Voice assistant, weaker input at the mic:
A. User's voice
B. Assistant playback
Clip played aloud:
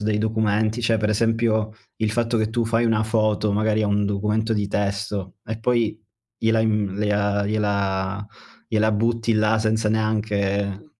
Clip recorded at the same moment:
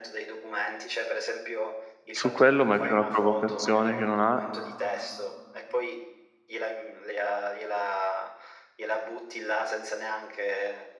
B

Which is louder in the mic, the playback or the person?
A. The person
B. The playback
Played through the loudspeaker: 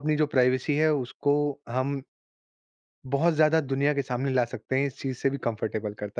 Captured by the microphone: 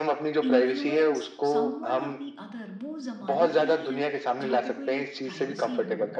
B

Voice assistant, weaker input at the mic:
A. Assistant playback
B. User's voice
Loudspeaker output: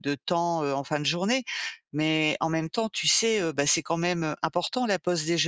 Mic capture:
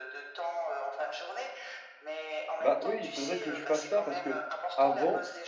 A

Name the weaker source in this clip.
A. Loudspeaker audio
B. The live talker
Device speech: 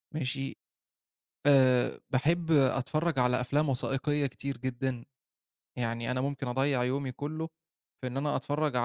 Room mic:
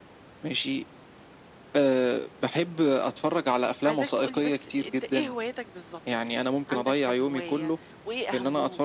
B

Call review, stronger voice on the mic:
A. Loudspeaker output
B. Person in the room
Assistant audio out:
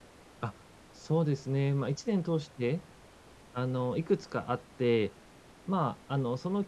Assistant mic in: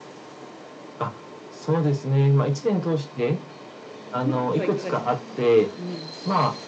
A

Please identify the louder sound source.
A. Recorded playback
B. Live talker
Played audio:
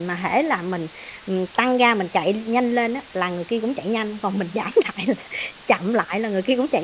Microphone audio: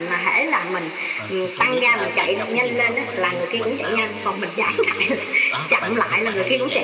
A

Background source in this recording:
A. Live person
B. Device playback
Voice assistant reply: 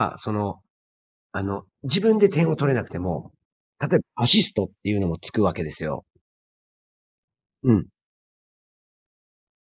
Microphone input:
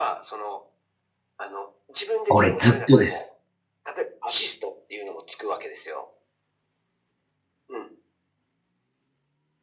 B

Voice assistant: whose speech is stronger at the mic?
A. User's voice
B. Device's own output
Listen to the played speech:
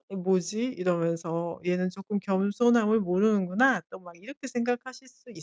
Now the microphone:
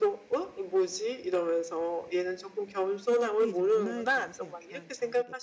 B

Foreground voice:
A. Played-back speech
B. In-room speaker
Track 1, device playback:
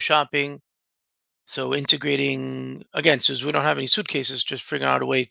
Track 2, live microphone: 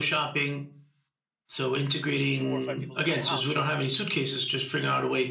A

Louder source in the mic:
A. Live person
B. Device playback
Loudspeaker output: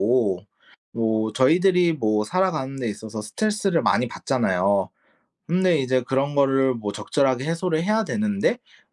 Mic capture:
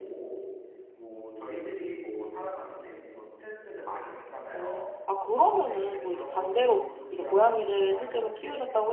A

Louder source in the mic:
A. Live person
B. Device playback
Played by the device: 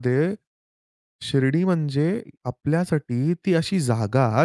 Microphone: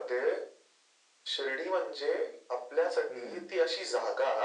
B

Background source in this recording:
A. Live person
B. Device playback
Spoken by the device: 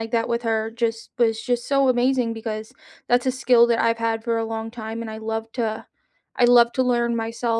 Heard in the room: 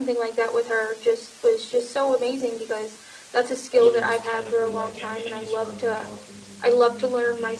A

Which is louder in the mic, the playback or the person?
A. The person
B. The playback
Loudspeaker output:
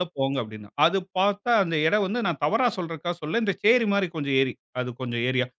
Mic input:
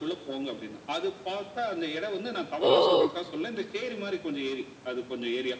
A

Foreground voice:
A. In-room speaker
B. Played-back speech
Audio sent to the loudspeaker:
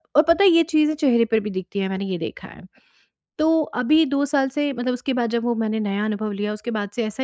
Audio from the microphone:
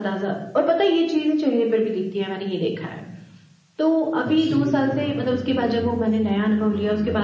B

